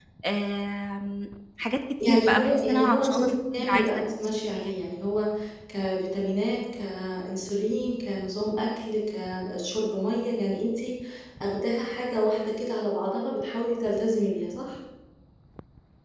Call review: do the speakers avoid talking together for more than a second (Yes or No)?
No